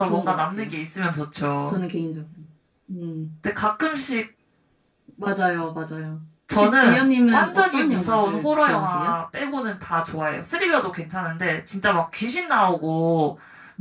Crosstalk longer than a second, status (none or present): present